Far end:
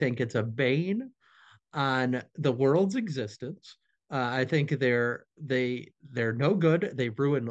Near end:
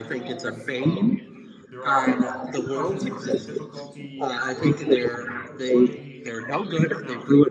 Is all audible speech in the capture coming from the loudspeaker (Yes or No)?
No